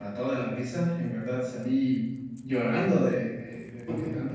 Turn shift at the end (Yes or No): No